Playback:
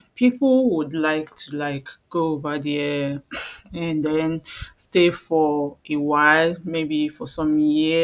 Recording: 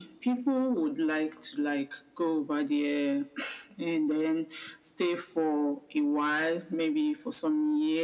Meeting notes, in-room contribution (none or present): none